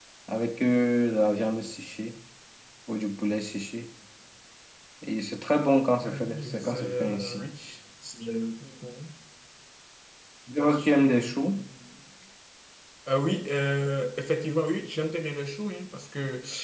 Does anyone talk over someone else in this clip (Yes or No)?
Yes